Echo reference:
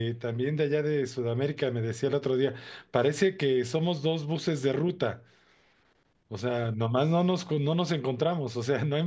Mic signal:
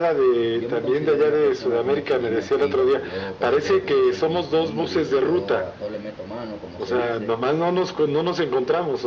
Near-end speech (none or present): present